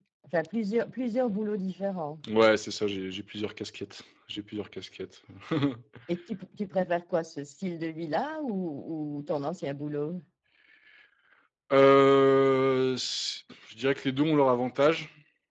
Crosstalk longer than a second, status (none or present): none